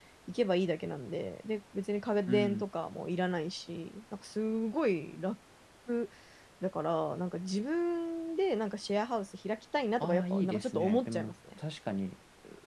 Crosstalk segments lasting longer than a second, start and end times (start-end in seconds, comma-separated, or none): 10.0-11.3